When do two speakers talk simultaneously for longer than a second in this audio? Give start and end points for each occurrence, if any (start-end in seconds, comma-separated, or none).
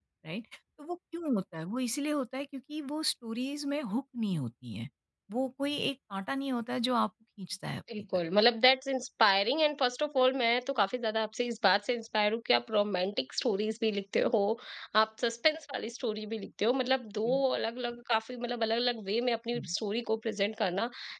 none